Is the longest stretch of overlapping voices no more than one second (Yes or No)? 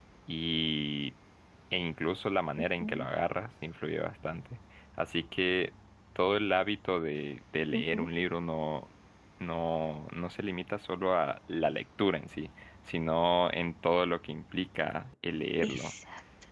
Yes